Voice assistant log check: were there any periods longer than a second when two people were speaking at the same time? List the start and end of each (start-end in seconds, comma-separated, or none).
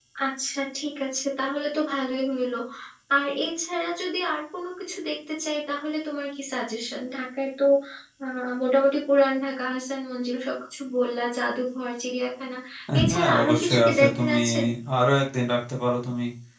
13.1-14.4